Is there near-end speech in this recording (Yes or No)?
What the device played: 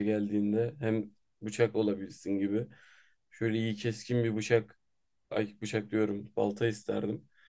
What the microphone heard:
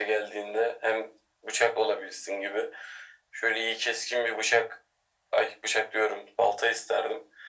No